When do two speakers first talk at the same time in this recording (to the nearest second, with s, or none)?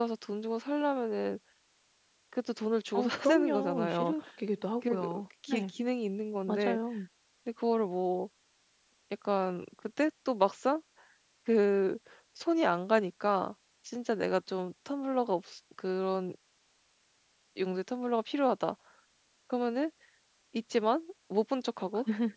3 s